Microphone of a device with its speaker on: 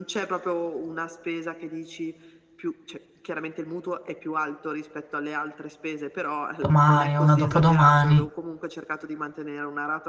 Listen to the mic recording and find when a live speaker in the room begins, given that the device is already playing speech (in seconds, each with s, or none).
6.6 s